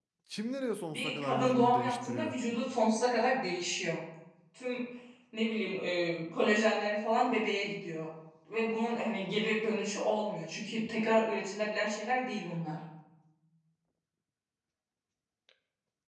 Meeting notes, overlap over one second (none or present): present